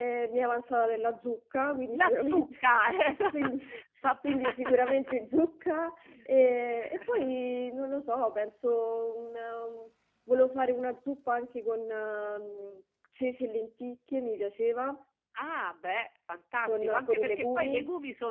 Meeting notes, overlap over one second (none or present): present